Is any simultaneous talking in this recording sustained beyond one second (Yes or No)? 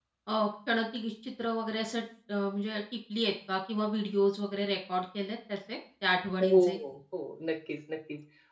No